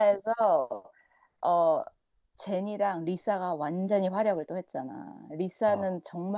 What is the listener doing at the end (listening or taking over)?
listening